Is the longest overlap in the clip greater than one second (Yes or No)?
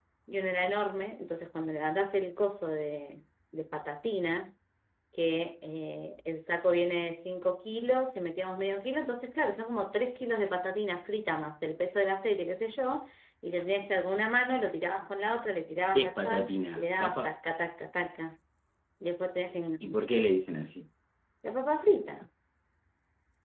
Yes